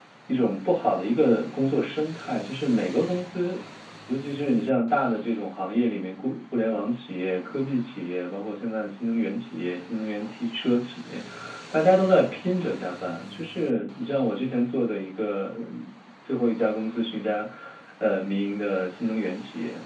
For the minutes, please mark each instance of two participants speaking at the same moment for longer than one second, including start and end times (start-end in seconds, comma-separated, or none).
none